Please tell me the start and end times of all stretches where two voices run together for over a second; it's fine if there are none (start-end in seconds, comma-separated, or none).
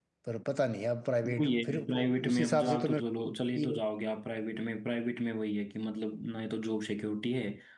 1.2-3.1